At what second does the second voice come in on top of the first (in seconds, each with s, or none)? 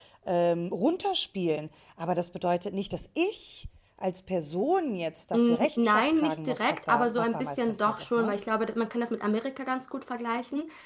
5.3 s